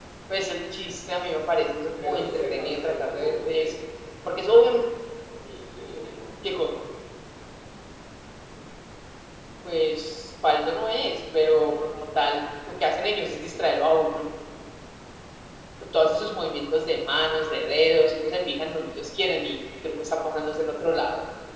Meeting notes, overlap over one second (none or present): present